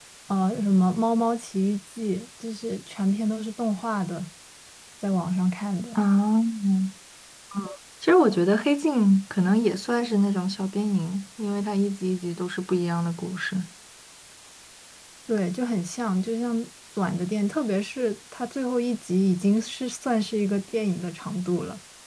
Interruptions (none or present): none